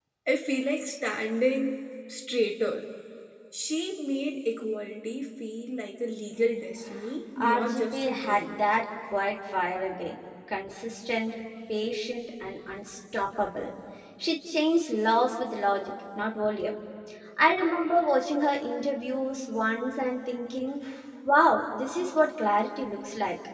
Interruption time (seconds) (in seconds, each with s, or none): 7.4 s